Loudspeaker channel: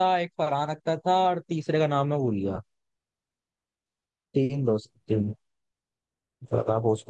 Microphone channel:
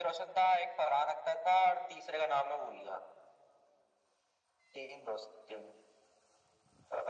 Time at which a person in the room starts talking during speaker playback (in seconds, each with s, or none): none